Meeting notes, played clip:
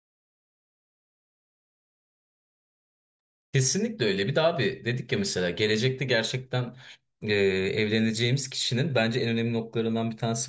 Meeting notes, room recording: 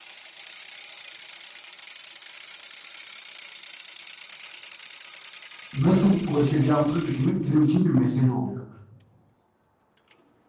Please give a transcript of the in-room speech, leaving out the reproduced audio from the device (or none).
nasıl ulaşacağımızı düşünmek bizim için bir mesele oluyor.